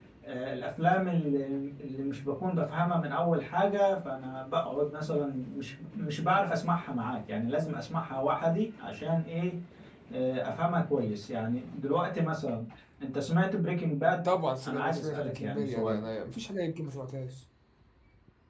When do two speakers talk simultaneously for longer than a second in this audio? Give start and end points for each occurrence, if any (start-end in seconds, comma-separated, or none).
14.6-16.1